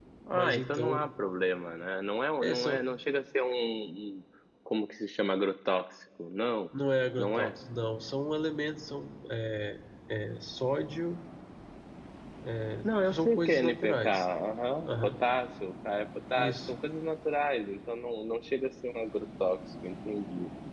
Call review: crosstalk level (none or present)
present